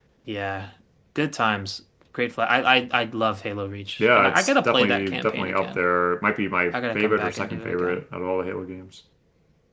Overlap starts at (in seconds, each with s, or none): 4.0 s